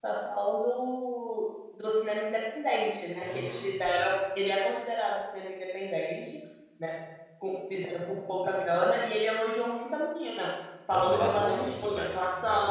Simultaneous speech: Yes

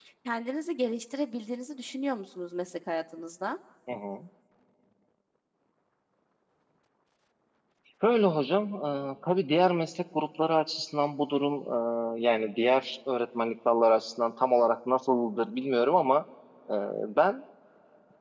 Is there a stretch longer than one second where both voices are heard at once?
No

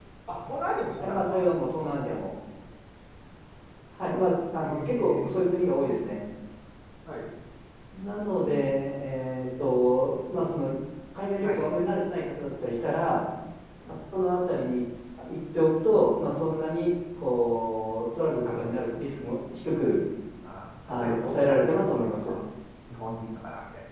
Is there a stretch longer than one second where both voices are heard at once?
Yes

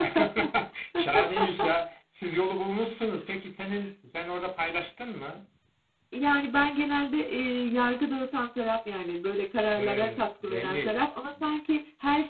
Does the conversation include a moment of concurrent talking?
Yes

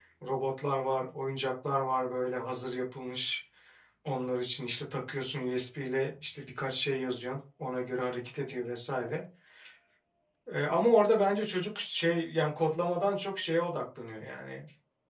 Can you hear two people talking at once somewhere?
No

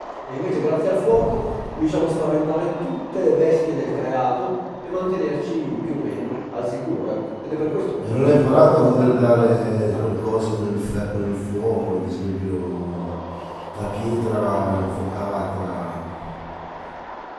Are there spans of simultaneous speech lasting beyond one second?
Yes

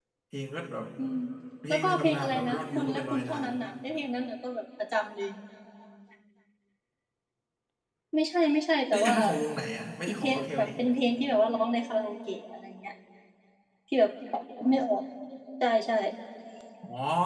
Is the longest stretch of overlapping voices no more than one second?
No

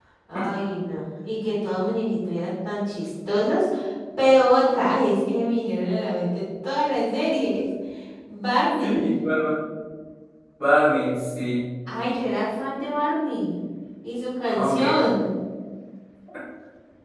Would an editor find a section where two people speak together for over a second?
No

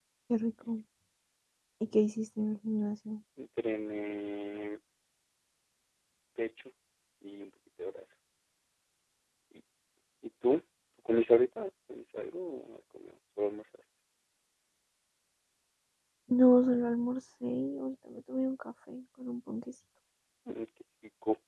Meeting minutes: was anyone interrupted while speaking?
No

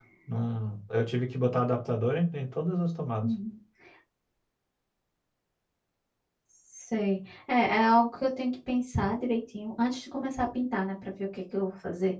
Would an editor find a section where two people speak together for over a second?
No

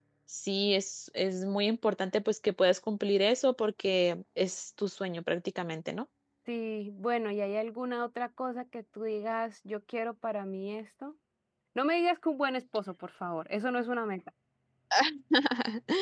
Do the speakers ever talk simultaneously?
No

